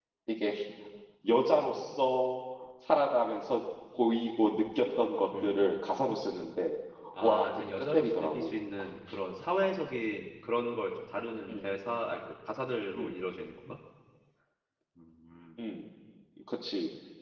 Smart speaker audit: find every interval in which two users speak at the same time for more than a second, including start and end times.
7.2-8.5

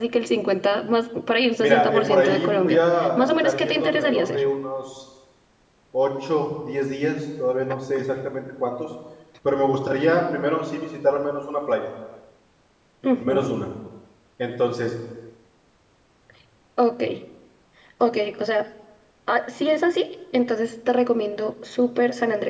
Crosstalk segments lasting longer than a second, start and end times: 1.6-4.4

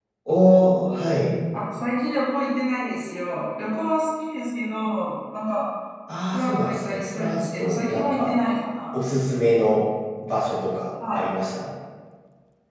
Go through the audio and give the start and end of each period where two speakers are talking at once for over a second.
6.3-8.4

